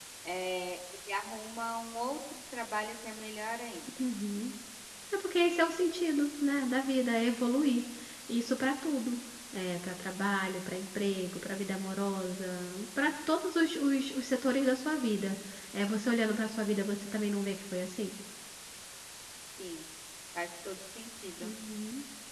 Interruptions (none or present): none